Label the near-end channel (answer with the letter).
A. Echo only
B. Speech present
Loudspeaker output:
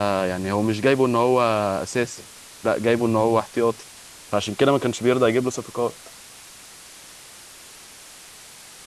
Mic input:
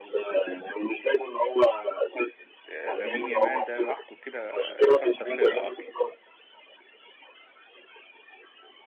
B